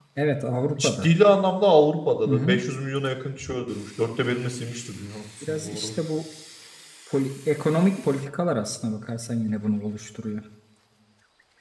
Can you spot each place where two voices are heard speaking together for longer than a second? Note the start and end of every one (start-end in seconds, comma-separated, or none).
none